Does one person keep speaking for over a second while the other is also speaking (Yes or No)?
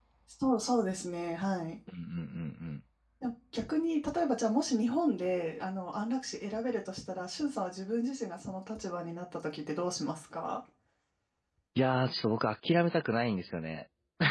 No